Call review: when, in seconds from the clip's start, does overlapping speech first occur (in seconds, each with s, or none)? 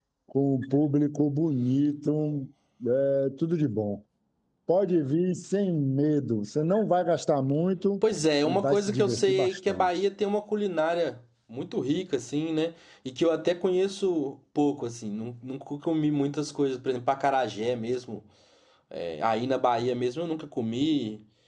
8.4 s